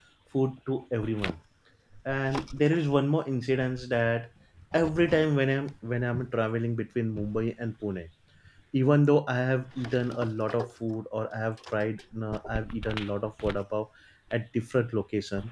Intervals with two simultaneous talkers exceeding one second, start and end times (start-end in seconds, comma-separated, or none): none